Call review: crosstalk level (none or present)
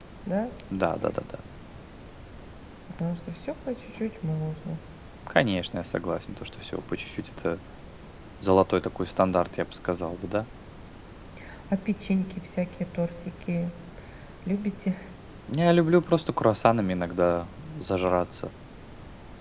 none